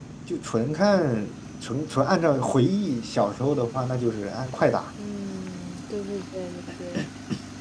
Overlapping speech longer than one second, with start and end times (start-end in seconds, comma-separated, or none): none